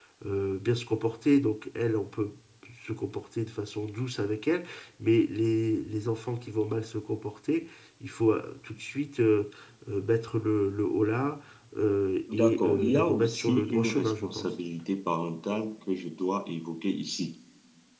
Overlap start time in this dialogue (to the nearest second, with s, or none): 12 s